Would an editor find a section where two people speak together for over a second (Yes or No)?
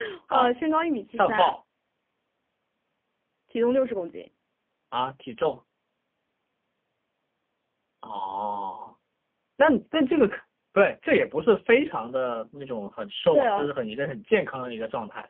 No